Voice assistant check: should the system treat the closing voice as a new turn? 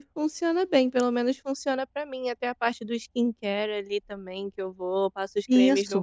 Yes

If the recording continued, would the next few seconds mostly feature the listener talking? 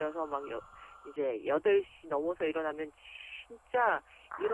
No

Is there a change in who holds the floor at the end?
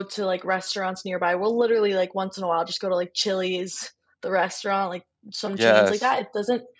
No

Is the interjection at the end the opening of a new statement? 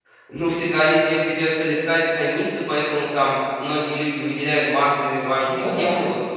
No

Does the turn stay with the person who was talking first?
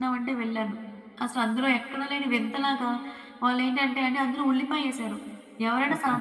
Yes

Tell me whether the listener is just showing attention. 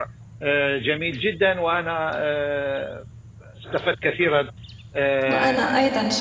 No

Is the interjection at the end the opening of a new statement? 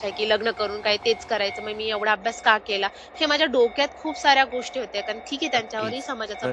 Yes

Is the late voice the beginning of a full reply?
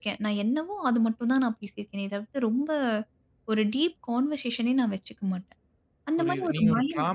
Yes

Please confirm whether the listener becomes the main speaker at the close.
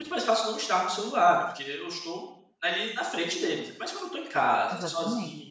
No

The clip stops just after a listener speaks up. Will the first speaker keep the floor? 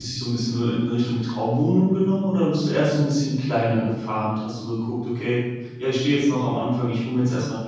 Yes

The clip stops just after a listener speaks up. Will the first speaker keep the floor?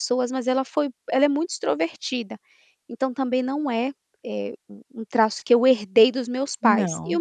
Yes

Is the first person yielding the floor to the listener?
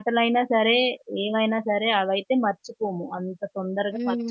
Yes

